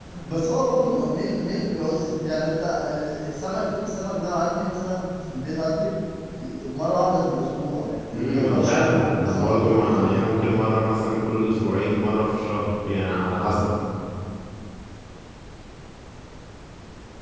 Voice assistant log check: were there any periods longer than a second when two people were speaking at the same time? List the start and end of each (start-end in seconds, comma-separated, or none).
8.1-10.7